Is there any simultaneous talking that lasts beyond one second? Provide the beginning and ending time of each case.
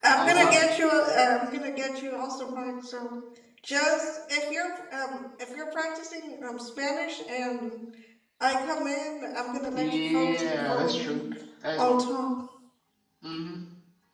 9.7-11.2

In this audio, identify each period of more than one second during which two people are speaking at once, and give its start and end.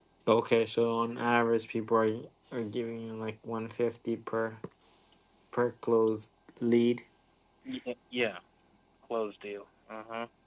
none

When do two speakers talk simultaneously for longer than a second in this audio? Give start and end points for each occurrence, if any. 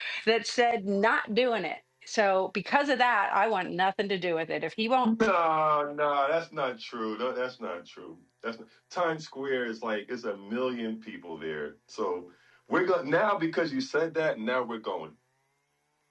none

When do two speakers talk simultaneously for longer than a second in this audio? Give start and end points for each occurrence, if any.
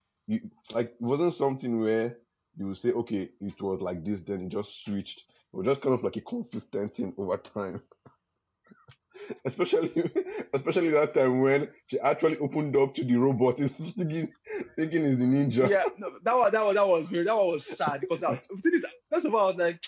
none

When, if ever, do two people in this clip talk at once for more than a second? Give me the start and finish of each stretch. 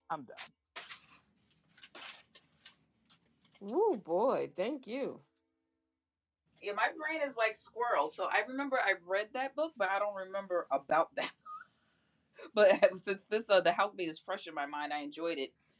none

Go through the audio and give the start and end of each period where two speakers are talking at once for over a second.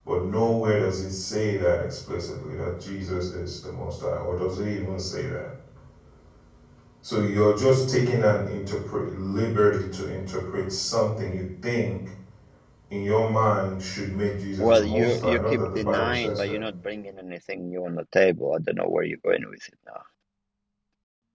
14.6-16.6

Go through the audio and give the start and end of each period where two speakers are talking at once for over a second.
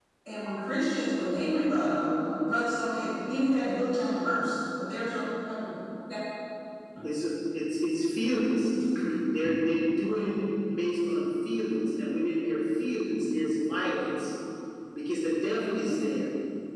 none

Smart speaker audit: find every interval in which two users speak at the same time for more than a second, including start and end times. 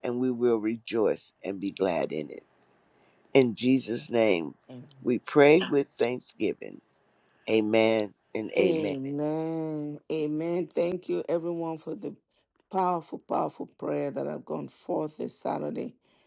none

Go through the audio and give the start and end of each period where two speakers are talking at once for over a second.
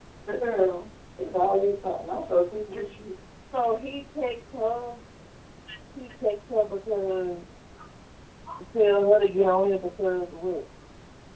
none

